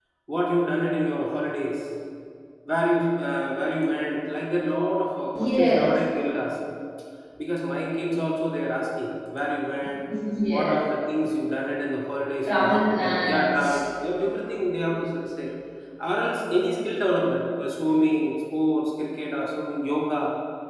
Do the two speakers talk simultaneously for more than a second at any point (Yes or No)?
Yes